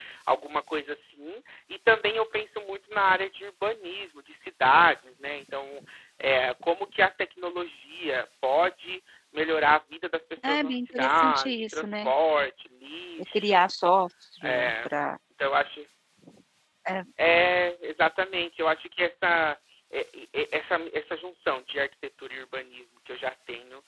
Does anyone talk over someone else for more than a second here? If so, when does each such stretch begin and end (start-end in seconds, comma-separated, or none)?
10.4-12.1